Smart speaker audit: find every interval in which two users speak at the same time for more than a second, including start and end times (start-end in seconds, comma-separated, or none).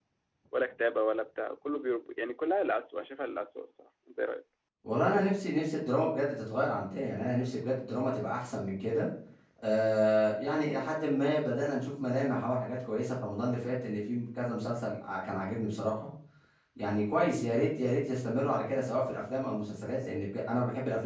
none